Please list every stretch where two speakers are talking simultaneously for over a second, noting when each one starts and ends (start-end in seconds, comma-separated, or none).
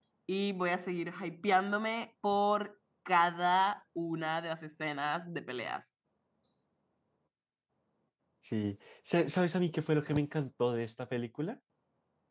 none